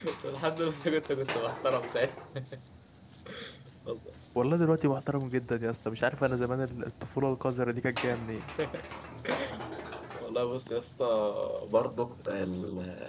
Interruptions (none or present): none